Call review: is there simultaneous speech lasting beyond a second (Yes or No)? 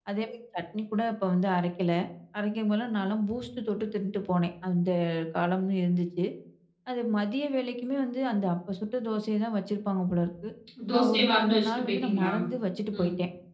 Yes